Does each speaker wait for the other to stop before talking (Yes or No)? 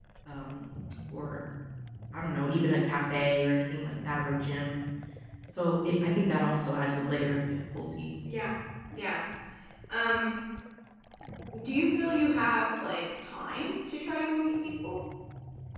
Yes